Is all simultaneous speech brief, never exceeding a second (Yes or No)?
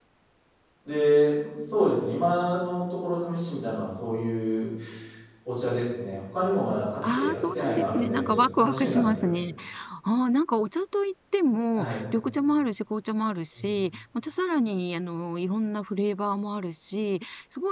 No